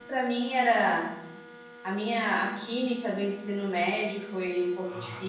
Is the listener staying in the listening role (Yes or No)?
No